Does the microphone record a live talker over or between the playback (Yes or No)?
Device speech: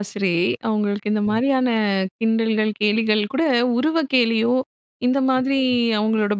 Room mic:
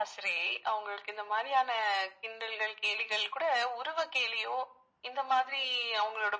No